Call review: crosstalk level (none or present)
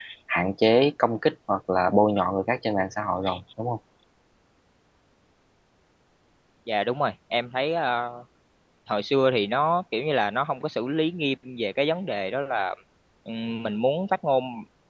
none